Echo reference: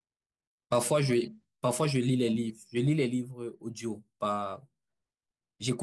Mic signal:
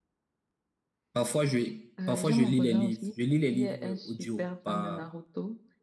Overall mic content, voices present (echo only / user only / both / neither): both